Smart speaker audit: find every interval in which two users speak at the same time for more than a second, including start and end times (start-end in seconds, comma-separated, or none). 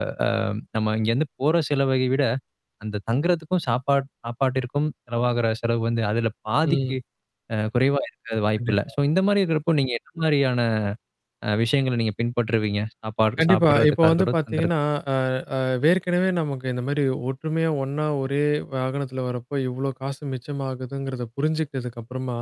13.4-14.7